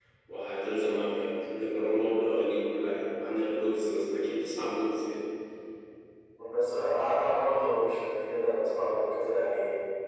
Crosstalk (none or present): none